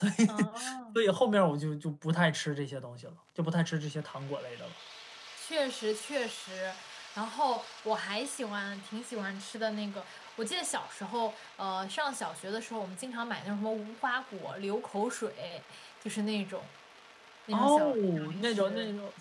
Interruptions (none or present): present